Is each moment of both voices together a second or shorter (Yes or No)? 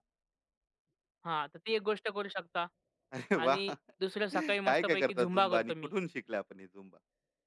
No